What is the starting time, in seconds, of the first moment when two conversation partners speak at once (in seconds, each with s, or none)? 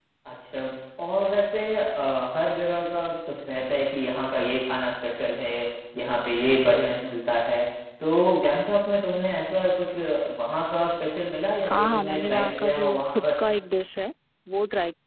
11.6 s